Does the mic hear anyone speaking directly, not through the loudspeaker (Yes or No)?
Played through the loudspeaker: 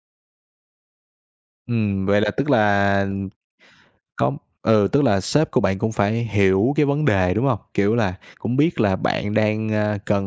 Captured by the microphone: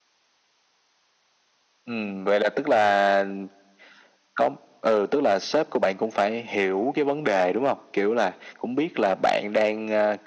No